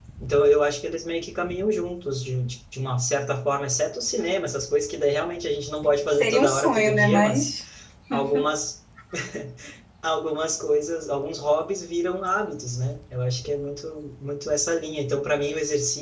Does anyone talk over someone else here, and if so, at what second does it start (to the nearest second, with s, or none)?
6 s